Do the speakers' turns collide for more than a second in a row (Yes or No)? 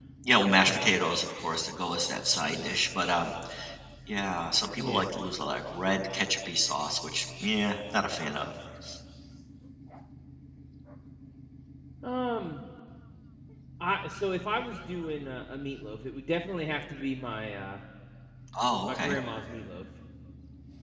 No